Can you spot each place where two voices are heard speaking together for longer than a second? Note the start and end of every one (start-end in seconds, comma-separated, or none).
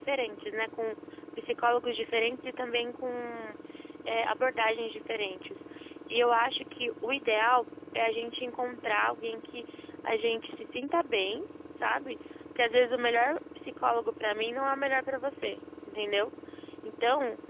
none